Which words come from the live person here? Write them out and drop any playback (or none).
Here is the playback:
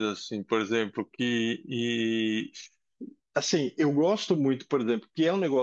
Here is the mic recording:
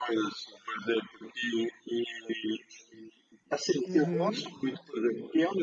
Uhum.